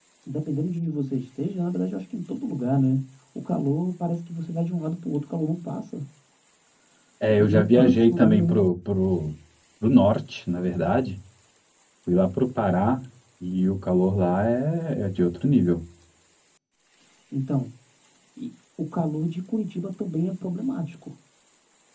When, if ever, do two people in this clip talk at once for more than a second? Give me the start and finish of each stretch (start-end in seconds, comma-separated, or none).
7.4-8.6